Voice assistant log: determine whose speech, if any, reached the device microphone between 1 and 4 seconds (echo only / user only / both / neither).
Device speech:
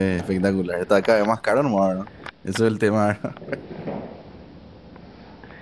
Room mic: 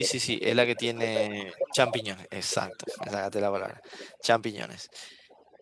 both